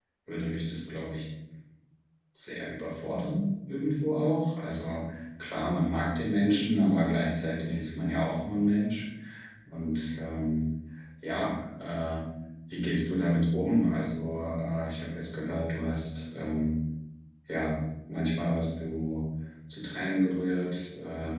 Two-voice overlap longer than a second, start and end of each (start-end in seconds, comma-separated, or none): none